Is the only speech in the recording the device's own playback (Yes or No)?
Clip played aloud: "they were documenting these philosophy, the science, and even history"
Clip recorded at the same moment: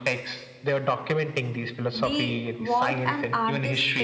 No